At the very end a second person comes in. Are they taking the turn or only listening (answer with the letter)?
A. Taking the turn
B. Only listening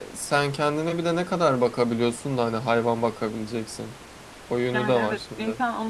A